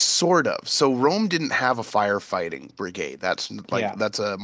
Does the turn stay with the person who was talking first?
Yes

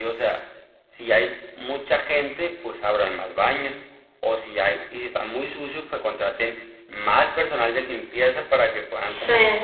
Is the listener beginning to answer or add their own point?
No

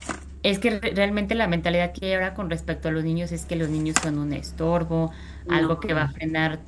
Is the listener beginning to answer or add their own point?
No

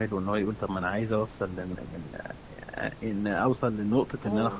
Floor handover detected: No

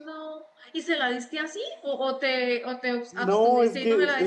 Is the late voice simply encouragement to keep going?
No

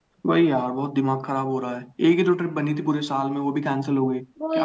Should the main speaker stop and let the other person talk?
Yes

